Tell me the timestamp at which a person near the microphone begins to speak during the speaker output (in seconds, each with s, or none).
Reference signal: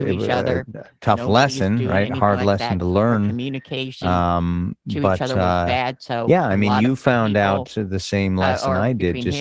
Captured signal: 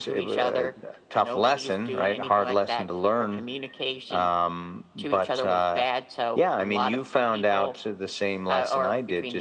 none